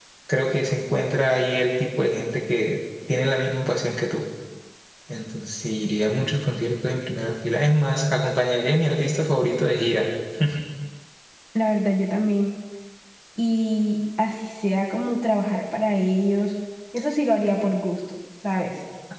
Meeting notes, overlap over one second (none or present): none